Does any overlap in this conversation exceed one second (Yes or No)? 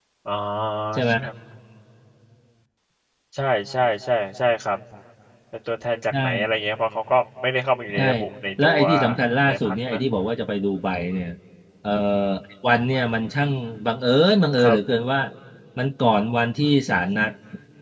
No